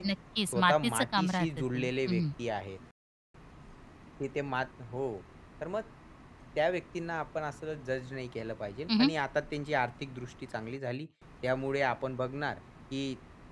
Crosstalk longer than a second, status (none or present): present